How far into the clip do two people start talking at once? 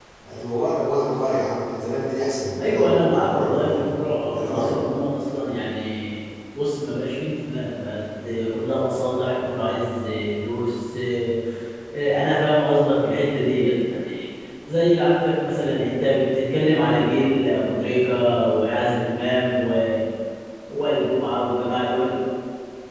2.6 s

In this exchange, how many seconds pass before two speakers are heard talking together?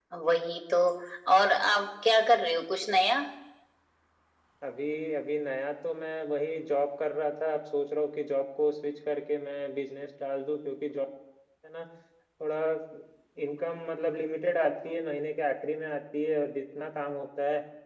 none

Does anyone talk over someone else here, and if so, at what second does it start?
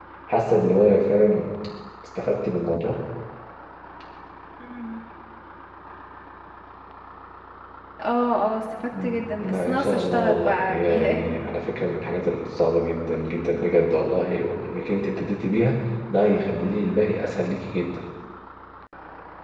8.9 s

